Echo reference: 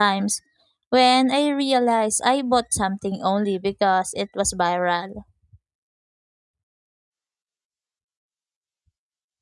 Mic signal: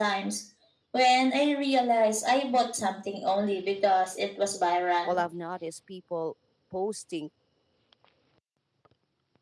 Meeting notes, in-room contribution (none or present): present